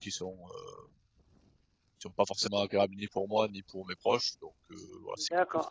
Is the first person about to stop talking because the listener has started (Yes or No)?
Yes